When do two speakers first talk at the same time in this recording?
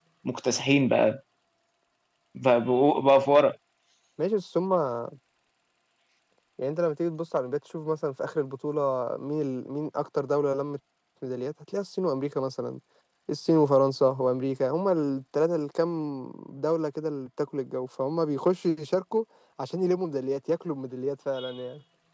none

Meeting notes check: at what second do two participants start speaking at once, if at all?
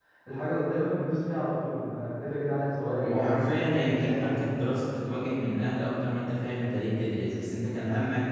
3.0 s

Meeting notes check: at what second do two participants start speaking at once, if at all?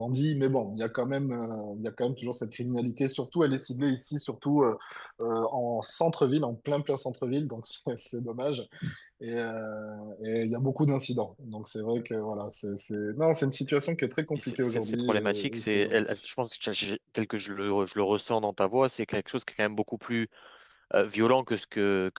14.4 s

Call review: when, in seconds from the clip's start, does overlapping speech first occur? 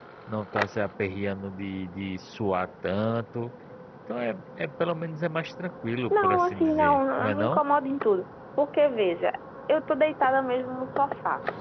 6.1 s

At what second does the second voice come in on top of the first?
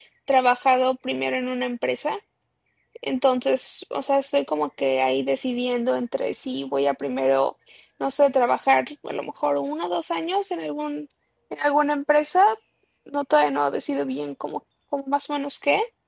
none

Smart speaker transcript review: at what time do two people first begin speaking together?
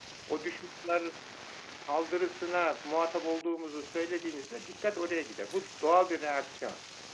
none

